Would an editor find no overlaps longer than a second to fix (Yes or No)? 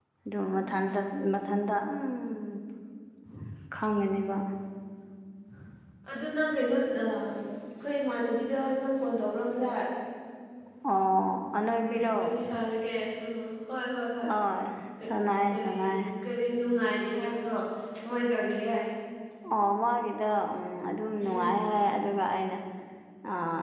Yes